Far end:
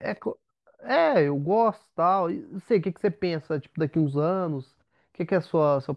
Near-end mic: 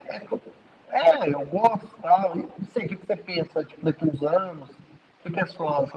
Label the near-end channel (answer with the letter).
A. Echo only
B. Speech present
A